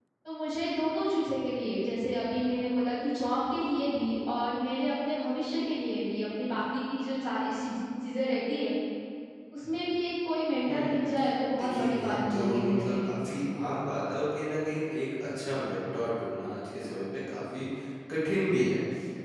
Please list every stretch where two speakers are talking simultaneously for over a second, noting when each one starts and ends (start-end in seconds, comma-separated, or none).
11.6-13.1